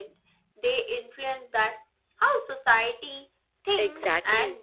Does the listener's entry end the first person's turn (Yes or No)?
Yes